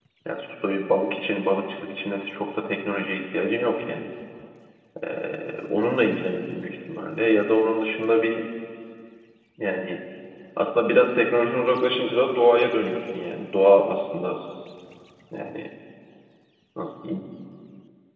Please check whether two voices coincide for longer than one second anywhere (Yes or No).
No